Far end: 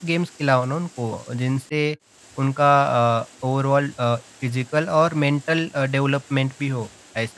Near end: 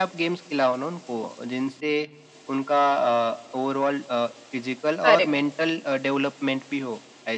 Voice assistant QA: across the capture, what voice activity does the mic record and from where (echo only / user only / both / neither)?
both